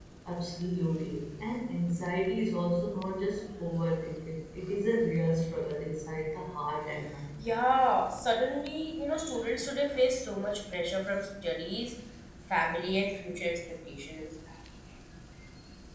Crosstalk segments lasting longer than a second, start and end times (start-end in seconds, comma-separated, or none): none